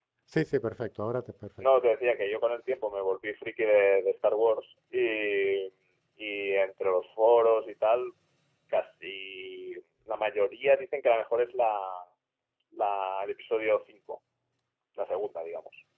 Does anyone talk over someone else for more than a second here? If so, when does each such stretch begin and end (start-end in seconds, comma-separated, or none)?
none